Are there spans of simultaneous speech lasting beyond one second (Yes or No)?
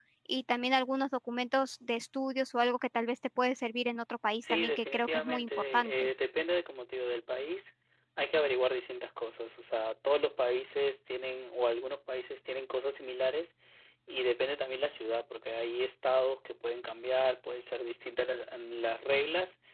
Yes